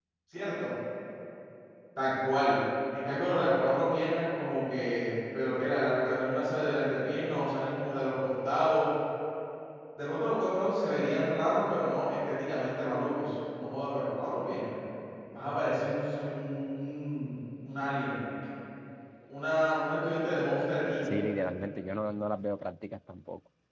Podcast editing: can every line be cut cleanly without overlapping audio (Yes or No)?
Yes